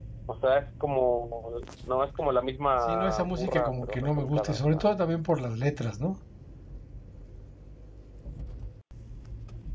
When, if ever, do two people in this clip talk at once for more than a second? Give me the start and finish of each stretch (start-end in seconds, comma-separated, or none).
2.9-5.0